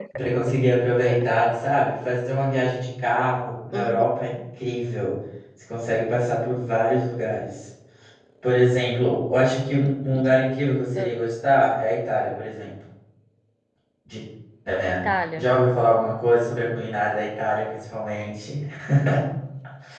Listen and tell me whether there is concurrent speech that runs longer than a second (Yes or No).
No